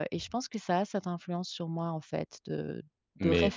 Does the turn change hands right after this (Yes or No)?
No